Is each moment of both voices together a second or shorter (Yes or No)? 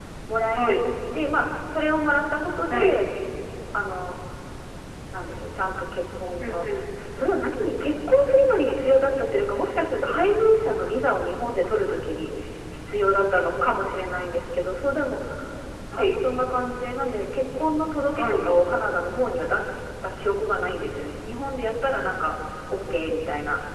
Yes